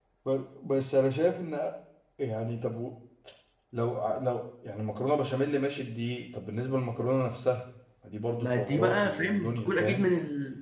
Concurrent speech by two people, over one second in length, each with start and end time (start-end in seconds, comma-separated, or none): 8.4-10.1